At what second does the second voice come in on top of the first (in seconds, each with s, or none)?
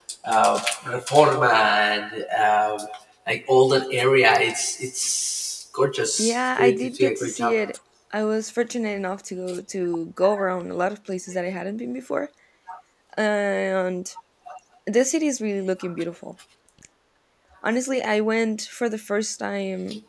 6.2 s